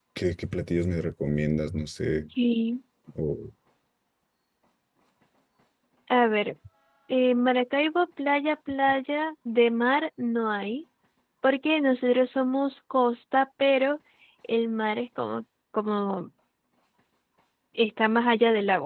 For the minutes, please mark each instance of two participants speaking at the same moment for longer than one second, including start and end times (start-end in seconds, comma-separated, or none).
none